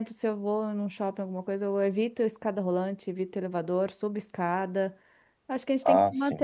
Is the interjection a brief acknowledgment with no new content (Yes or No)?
Yes